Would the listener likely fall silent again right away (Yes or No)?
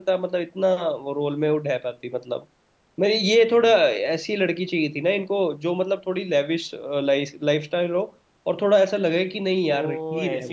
No